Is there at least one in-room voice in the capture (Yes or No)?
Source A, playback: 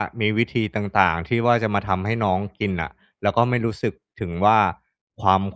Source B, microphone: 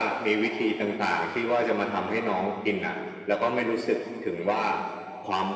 No